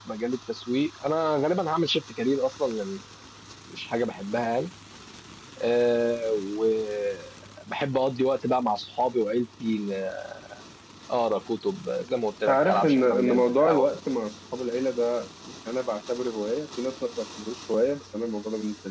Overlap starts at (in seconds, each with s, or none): 12.5 s